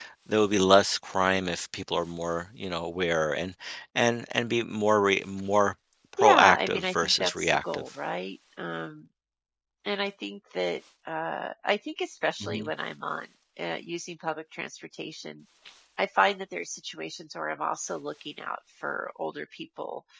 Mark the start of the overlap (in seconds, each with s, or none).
6.2 s